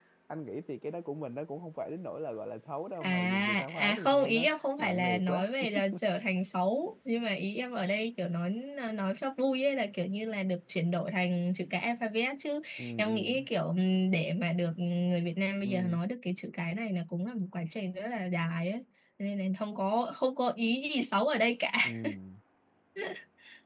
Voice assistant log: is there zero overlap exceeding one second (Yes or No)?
No